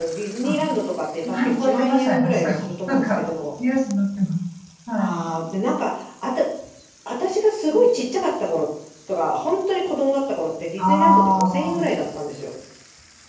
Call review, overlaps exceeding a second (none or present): present